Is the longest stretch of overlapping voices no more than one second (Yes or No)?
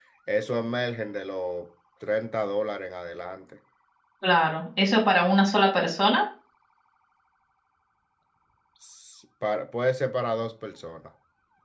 Yes